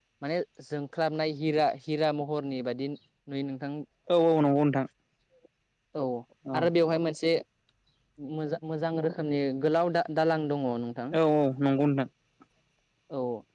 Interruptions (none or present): none